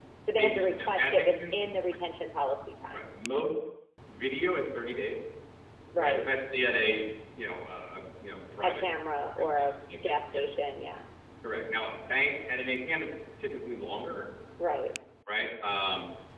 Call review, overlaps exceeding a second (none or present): present